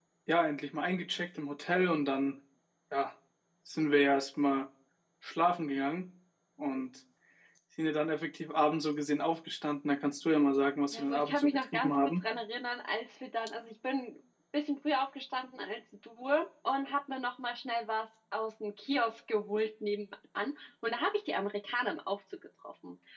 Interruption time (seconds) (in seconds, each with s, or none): 10.9 s